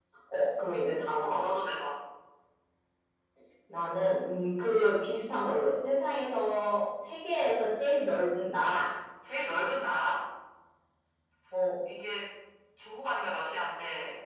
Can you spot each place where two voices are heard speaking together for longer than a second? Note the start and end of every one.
none

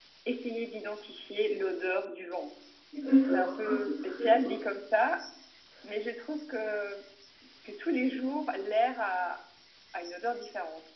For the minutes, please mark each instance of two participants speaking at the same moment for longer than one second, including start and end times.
3.3-4.7

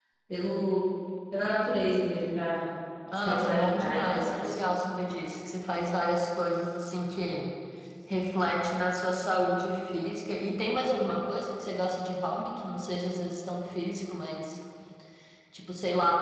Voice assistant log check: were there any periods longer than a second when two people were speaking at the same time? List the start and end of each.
3.1-4.5

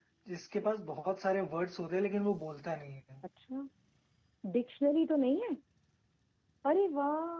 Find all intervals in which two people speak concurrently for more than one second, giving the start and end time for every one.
none

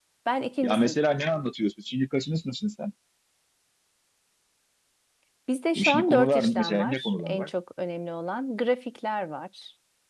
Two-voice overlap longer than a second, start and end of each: 5.8-7.5

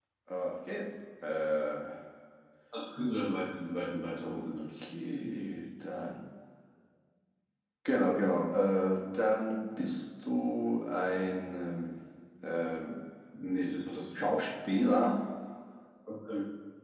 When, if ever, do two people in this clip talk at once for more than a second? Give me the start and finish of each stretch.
none

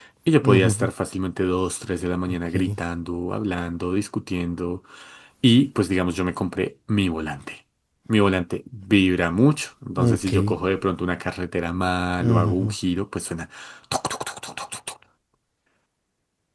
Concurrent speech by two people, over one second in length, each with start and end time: none

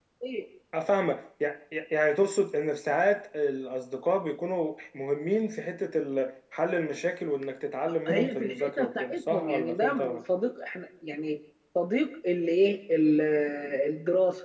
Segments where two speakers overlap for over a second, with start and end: 8.1-10.2

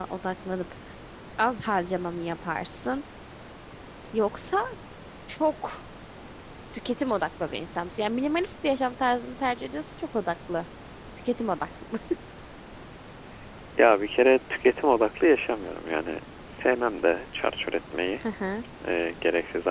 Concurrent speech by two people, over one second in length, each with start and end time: none

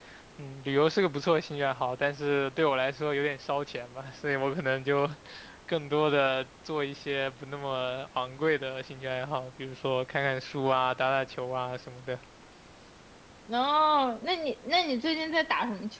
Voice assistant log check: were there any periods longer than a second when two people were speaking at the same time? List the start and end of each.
none

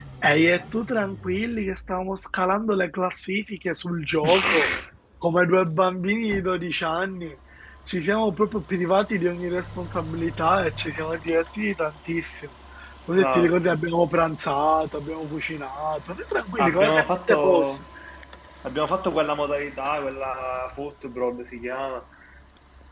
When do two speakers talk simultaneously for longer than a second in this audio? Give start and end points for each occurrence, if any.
16.6-17.8

